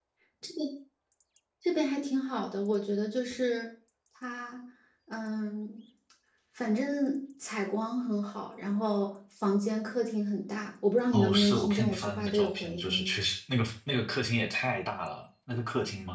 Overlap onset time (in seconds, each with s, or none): 11.1 s